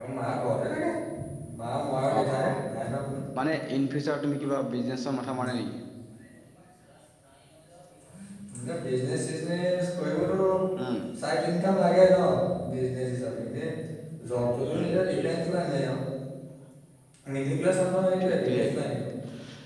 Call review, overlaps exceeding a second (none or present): none